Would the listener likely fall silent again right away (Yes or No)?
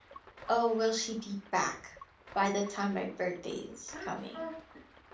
No